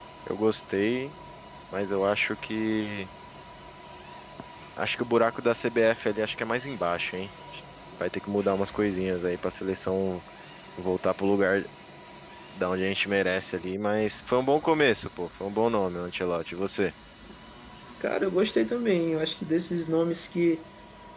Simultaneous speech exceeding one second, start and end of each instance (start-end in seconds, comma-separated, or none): none